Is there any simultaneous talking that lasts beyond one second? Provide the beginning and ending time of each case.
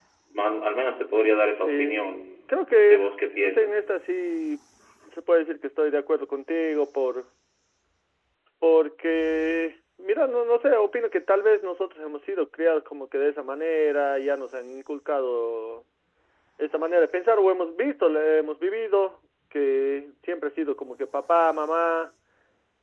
2.5-3.8

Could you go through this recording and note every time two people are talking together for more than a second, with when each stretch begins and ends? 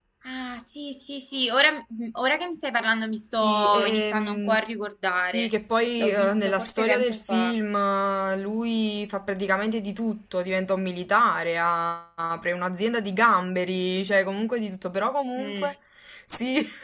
3.3-4.6, 6.0-7.5

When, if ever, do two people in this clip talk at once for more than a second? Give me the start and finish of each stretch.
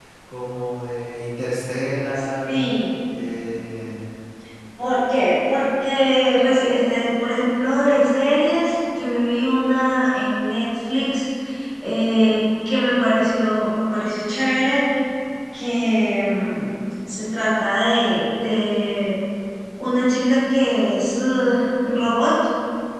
none

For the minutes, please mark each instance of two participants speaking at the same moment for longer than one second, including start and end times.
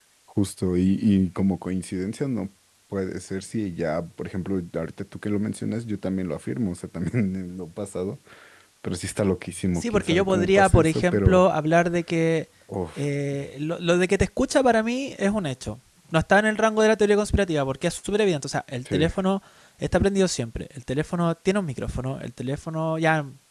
9.8-11.4

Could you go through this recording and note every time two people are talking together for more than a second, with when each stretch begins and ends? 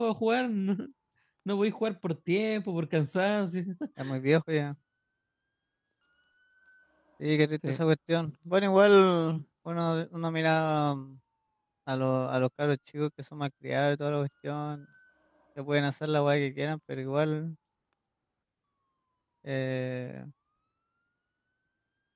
none

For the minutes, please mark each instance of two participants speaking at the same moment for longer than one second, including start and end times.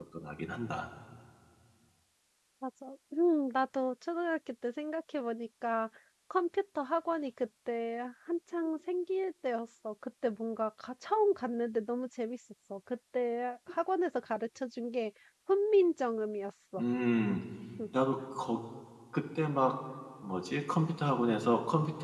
none

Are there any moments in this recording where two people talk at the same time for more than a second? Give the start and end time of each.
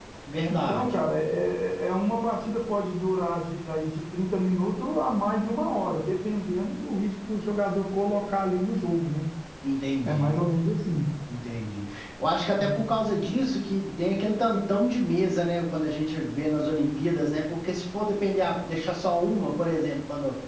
none

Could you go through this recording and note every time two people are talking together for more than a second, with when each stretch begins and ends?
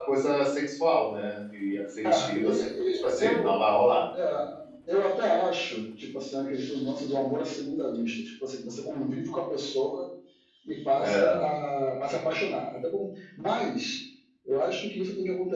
2.0-3.6

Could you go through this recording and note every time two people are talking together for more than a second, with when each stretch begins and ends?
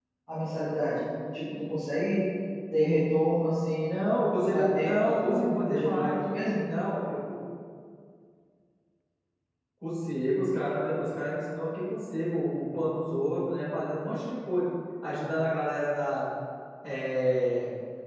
4.5-6.1

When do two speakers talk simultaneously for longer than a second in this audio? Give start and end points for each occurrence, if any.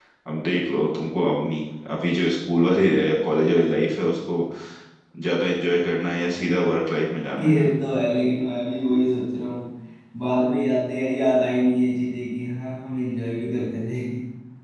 none

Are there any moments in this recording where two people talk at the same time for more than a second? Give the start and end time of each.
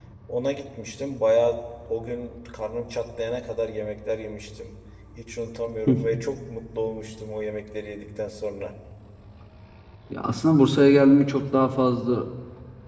none

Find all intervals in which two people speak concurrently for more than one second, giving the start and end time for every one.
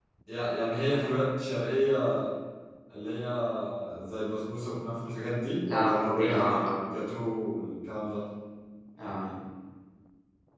5.7-6.9

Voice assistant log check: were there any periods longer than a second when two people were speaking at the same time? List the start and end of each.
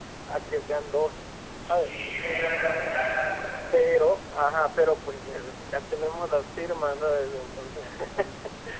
none

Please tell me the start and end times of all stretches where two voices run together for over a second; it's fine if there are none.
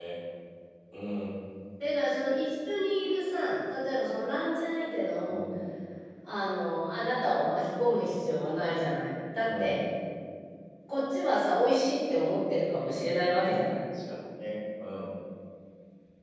none

